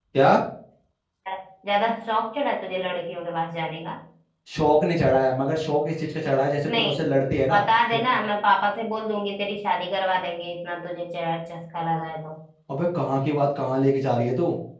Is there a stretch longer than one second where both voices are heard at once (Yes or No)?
No